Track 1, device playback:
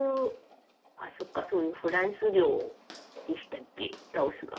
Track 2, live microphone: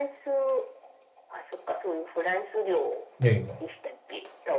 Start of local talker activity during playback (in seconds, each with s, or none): 3.2 s